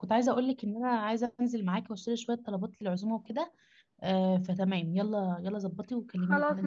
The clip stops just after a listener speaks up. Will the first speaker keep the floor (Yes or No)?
No